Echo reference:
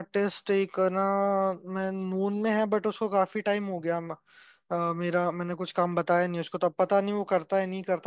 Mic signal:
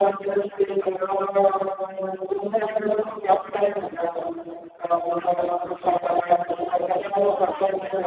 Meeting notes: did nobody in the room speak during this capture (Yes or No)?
No